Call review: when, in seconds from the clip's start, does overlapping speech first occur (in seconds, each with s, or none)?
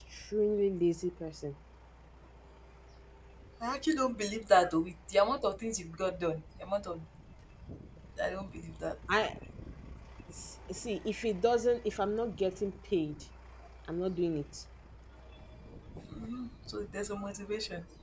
none